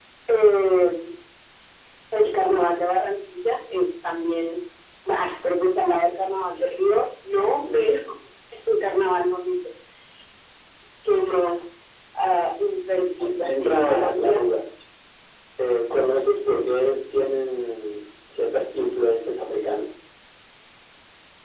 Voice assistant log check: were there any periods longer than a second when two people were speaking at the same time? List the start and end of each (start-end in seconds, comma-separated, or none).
13.2-14.4